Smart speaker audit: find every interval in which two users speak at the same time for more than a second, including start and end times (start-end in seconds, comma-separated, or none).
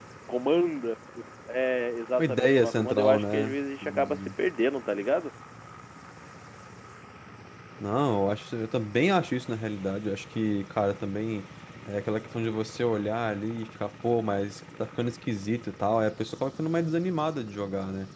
2.2-3.5